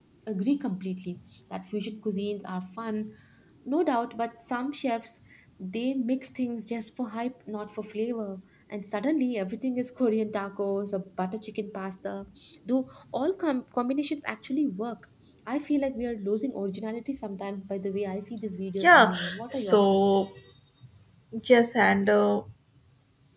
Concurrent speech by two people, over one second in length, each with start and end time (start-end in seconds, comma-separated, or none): 18.8-20.0